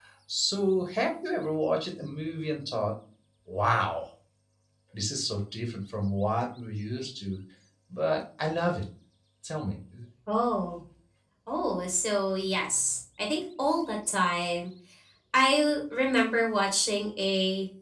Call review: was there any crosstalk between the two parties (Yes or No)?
No